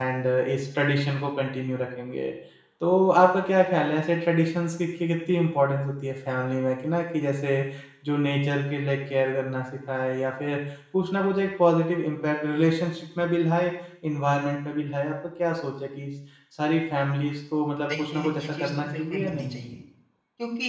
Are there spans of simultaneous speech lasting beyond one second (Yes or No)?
Yes